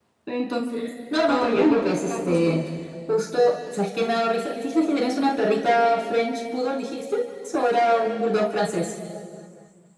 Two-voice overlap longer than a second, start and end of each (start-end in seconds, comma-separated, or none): 1.3-2.6